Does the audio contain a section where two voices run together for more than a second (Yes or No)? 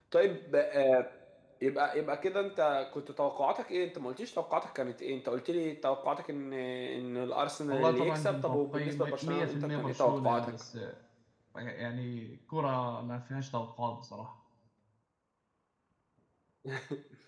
Yes